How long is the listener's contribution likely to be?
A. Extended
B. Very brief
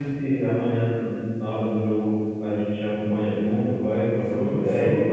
A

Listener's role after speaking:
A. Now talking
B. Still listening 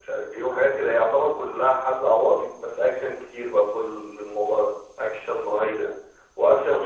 B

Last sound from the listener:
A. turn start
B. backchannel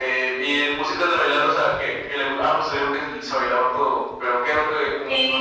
A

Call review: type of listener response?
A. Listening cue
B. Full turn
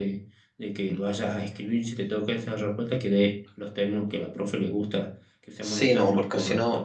B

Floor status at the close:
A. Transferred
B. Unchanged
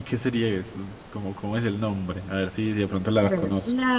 A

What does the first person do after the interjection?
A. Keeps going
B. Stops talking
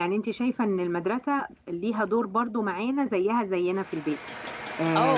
B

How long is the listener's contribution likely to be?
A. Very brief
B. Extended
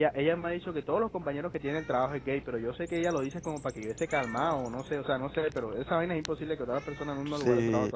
B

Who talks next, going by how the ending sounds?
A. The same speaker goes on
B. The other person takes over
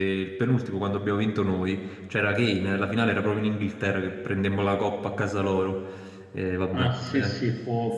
B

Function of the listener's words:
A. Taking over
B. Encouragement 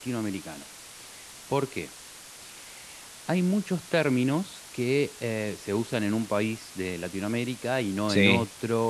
B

